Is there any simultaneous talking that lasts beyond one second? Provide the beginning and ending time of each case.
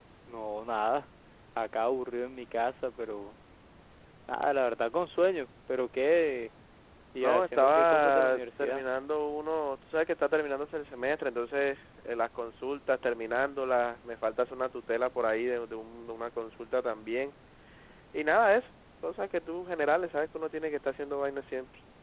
7.2-8.8

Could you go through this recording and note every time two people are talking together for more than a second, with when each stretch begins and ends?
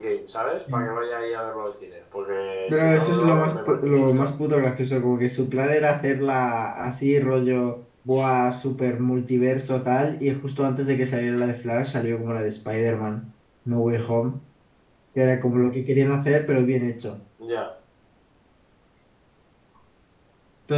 2.7-4.3

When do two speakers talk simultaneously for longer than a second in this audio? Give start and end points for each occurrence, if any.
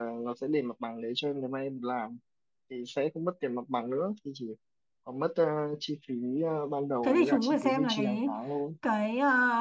7.0-8.3

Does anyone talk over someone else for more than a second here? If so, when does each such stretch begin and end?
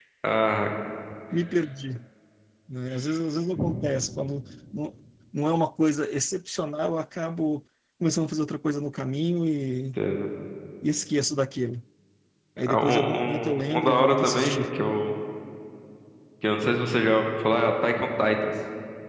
12.6-14.7

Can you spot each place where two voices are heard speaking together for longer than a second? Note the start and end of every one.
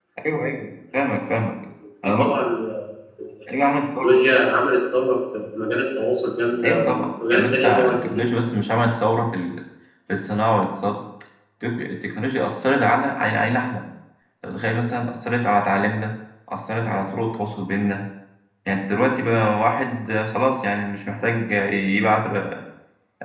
6.6-8.4

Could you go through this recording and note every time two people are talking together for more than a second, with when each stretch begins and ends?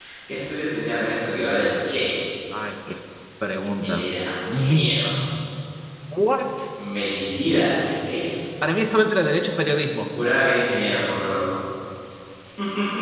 none

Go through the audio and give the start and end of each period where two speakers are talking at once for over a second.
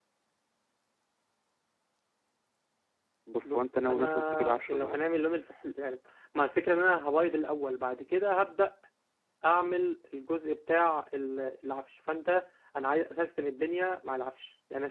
3.4-5.0

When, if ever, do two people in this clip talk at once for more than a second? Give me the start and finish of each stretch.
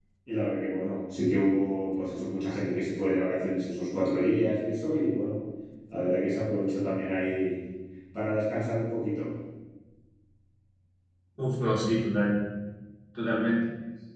none

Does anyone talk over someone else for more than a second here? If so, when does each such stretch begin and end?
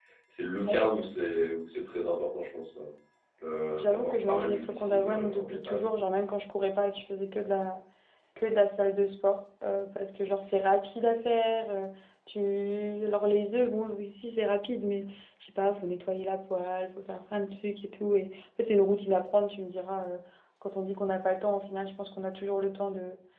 3.8-5.9

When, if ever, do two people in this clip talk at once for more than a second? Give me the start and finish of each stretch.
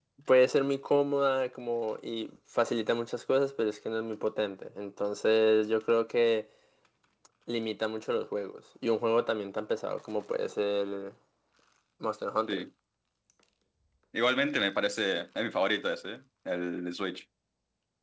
none

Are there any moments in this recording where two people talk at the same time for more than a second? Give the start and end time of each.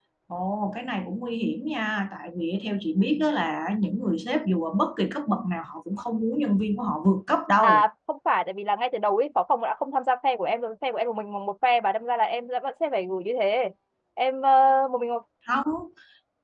none

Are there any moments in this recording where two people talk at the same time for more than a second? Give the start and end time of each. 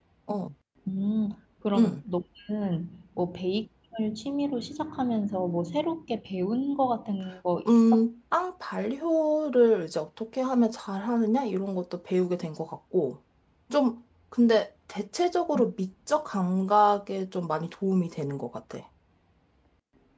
none

